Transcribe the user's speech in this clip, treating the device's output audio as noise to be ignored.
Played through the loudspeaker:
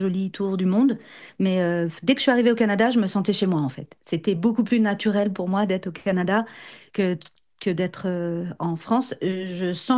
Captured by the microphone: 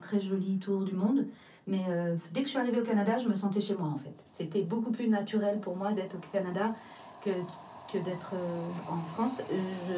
none

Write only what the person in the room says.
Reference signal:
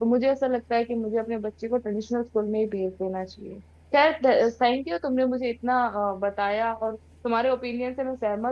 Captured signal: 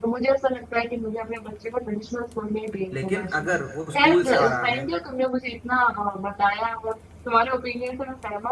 लेकिन अगर वो स्कूल से आ रहा है

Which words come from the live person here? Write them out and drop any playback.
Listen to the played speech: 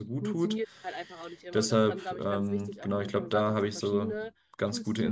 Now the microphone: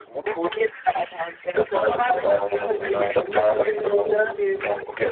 vorbereiten, sage ich mal, weil die mir persönlich zum Beispiel

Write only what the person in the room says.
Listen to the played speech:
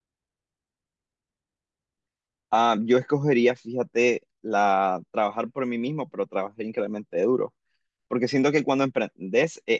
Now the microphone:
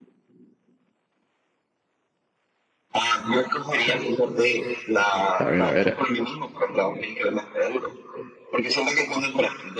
A ver, a ver.

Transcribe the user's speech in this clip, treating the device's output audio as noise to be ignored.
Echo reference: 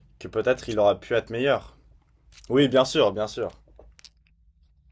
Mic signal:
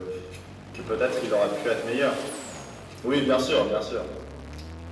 none

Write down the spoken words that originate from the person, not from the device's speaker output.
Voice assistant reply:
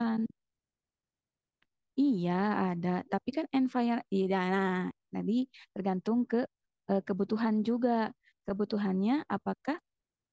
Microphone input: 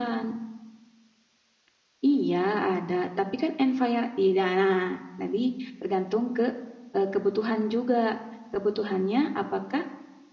none

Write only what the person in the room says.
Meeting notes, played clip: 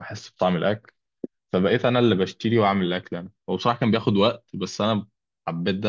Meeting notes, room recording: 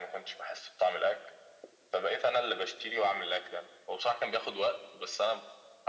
none

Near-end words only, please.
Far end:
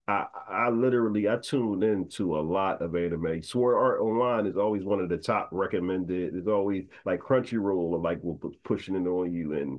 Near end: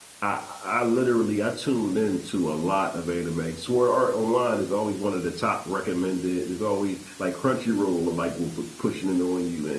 none

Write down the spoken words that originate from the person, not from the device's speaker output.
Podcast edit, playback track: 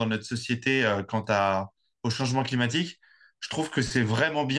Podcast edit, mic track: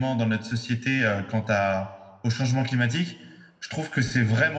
none

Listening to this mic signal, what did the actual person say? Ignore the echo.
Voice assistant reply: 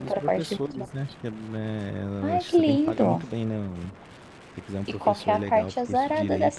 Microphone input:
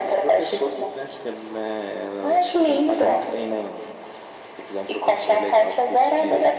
none

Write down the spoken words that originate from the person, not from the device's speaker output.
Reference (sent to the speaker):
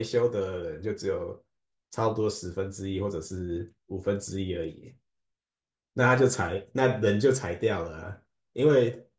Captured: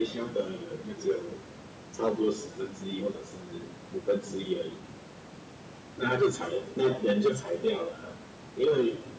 none

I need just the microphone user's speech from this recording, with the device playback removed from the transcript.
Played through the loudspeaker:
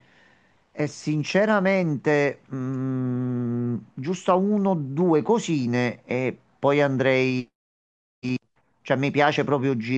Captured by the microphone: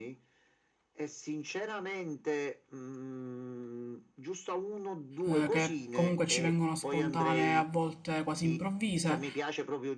eh, che comunque ci vengono spontanee, a volte quasi improvvise.

